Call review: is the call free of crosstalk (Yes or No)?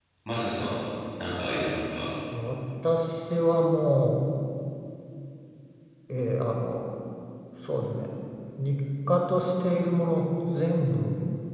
Yes